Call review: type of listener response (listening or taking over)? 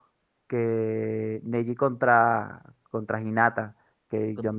listening